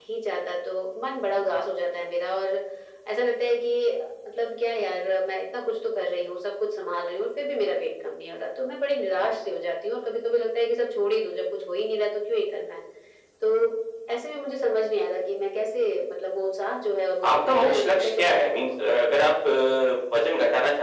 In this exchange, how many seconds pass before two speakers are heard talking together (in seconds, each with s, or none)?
17.2 s